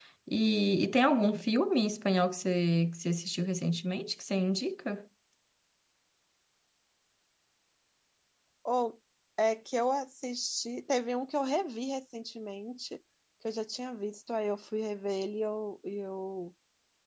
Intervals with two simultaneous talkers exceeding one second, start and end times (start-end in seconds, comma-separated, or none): none